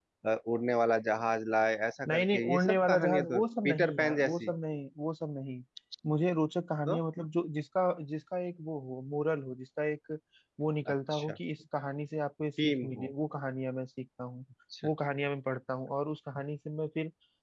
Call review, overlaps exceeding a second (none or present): present